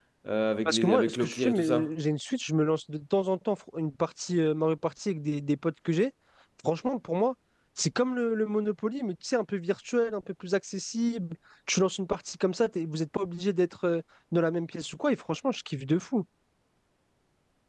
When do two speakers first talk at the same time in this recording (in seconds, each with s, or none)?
0.7 s